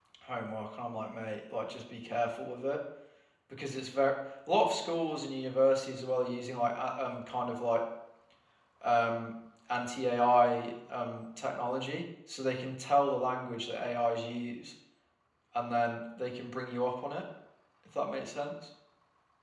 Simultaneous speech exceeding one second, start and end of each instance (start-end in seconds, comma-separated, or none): none